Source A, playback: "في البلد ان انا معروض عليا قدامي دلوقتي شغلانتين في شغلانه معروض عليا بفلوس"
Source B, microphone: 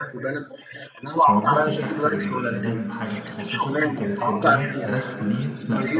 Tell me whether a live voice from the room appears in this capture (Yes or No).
Yes